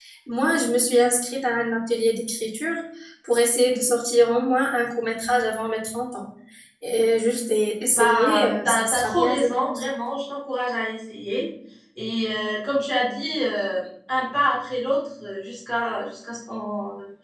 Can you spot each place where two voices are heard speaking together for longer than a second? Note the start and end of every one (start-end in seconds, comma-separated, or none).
7.9-9.8